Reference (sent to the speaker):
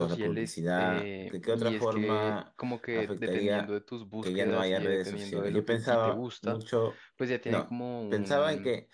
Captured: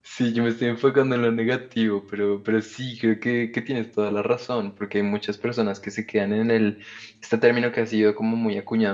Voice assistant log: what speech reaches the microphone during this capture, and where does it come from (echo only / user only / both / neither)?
user only